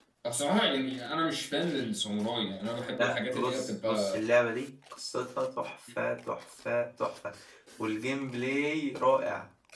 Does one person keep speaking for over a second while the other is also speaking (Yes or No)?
Yes